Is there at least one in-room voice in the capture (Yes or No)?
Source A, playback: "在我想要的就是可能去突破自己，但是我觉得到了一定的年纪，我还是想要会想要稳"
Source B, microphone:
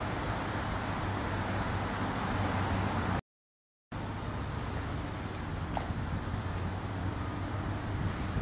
No